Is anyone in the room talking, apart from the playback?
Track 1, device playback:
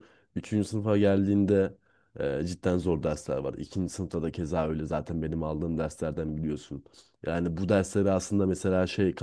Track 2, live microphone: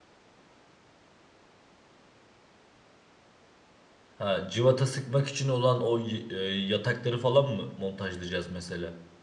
Yes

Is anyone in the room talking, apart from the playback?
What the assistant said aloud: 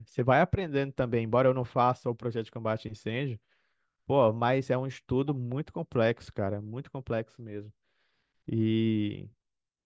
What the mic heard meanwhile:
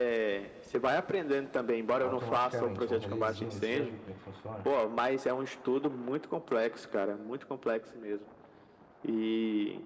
Yes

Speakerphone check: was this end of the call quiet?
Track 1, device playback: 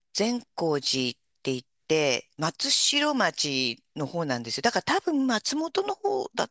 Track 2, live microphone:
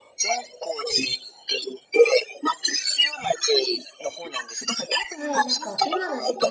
No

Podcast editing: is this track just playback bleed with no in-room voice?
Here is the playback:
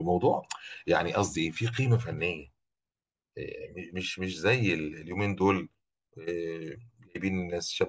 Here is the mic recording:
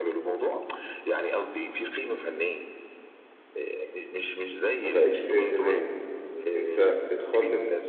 No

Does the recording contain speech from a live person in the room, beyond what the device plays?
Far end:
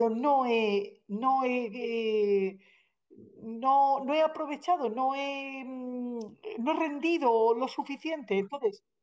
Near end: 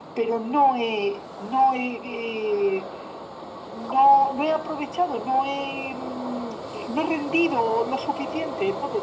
No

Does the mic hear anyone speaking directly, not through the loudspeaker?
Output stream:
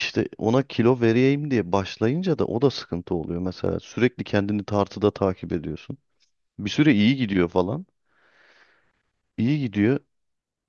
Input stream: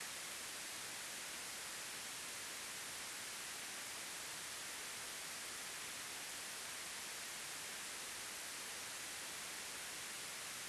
No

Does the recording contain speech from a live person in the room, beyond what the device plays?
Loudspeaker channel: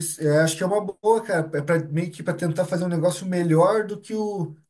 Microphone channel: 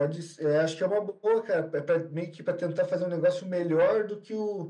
No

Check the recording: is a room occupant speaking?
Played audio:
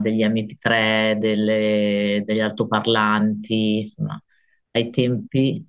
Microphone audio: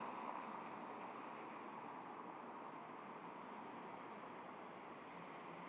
No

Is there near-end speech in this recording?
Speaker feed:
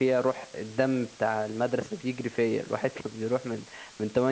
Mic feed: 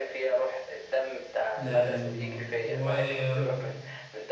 Yes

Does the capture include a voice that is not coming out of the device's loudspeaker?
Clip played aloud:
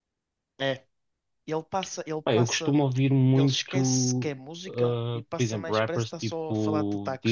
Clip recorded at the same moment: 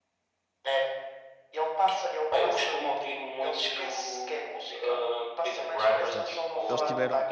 Yes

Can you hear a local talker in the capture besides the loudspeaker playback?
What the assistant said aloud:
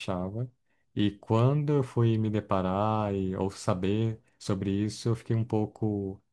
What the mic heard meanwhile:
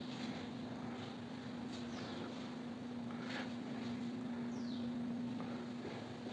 No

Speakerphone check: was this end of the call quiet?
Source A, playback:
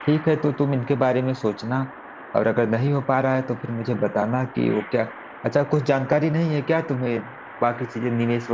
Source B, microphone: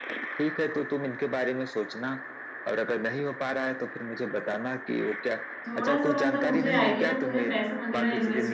No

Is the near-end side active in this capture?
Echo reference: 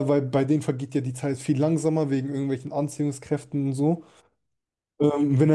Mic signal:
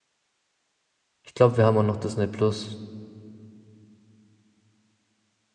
Yes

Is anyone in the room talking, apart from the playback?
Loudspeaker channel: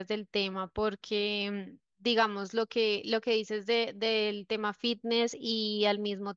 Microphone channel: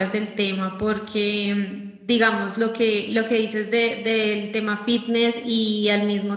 No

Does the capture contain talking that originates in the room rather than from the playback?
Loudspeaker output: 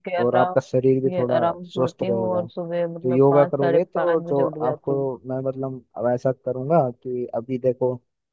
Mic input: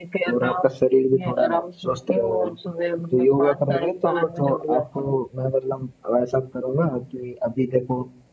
No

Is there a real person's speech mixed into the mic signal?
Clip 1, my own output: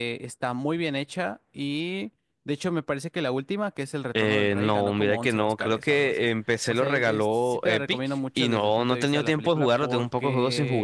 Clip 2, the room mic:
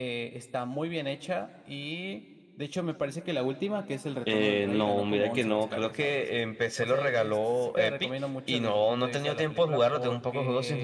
No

